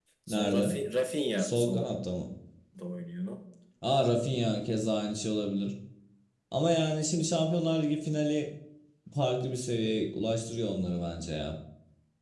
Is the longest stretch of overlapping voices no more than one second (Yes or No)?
Yes